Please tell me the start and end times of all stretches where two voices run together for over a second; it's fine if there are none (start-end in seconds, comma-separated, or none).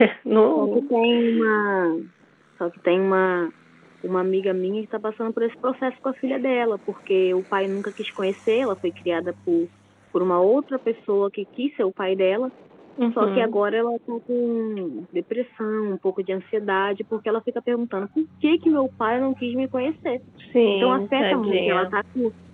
20.7-21.9